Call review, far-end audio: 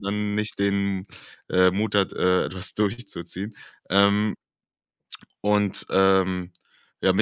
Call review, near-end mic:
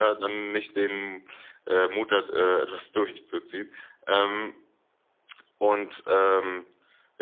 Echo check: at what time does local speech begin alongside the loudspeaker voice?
none

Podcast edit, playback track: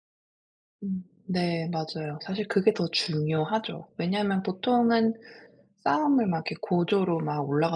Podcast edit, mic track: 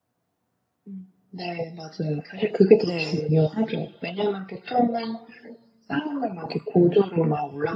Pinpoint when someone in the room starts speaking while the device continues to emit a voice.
2.8 s

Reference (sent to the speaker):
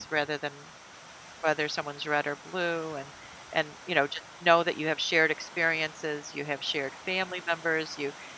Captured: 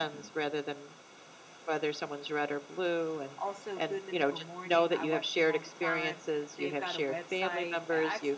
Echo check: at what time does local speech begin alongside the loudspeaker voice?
3.4 s

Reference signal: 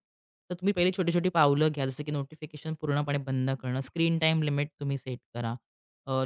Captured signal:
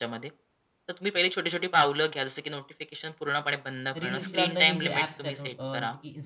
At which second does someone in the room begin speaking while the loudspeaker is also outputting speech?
4.0 s

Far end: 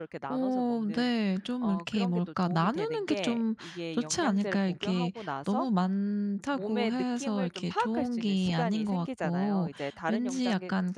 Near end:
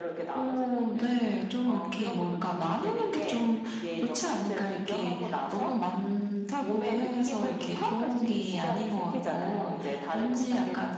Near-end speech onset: none

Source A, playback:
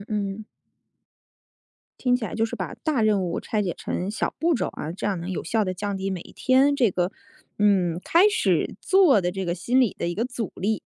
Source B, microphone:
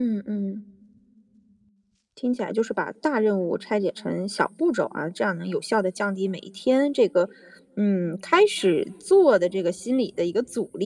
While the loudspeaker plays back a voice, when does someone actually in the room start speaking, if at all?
none

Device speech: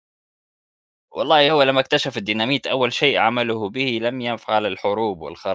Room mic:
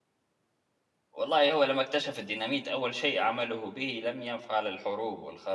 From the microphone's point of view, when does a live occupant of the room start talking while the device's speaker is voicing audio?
none

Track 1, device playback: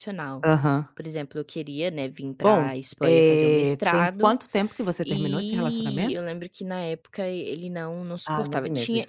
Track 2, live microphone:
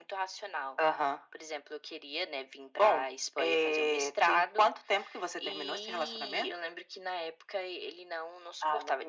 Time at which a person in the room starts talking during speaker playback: none

